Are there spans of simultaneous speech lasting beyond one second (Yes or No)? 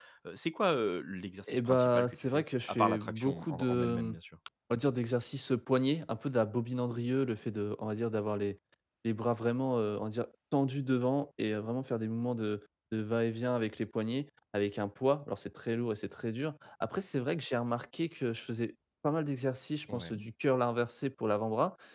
Yes